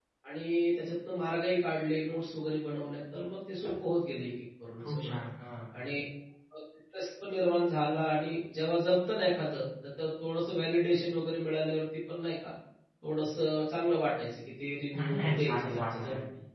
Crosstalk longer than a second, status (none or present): present